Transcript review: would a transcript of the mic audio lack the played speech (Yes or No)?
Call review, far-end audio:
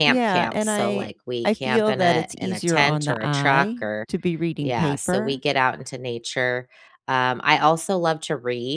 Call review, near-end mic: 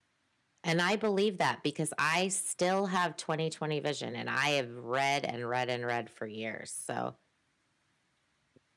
Yes